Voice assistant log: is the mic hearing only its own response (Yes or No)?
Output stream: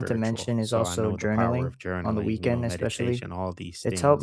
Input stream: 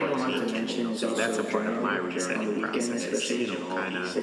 No